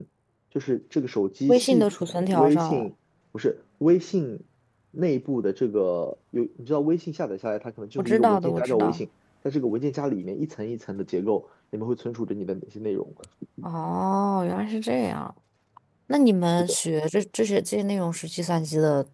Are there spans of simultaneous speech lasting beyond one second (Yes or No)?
Yes